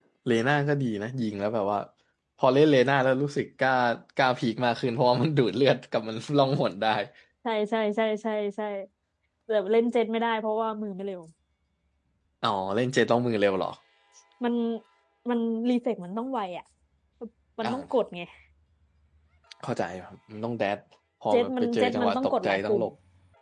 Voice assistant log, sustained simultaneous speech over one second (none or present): present